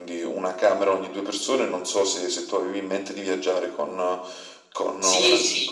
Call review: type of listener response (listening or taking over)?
taking over